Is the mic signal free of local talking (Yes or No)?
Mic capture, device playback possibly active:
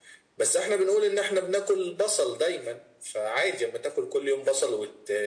Yes